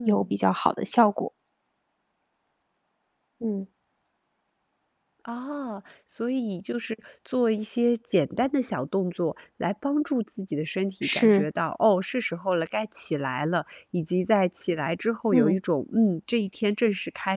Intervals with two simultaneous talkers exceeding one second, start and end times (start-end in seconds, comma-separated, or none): none